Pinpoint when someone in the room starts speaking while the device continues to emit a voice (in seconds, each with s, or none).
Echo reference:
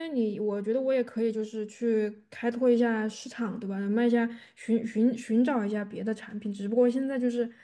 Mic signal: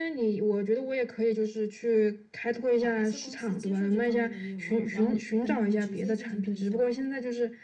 2.8 s